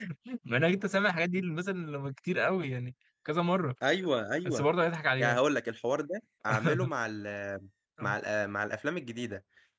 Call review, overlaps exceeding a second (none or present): none